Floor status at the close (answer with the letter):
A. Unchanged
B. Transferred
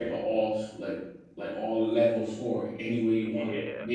A